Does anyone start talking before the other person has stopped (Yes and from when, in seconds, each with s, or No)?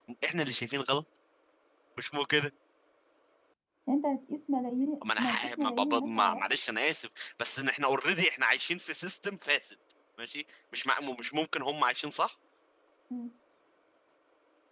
Yes, from 5.0 s